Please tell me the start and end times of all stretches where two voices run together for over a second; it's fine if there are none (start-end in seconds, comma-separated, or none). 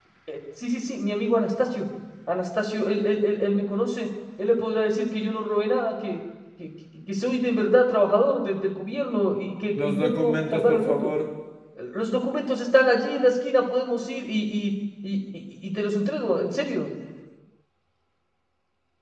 9.8-11.1